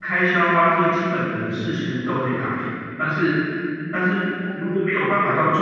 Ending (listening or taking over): listening